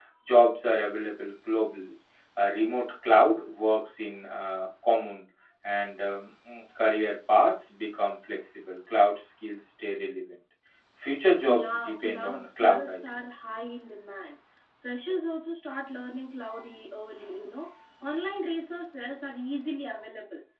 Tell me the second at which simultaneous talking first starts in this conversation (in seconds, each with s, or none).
11.4 s